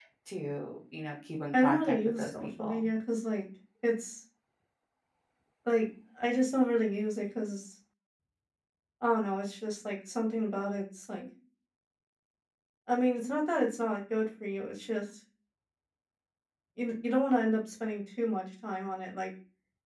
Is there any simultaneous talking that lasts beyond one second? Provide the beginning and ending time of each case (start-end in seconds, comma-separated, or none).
1.5-2.9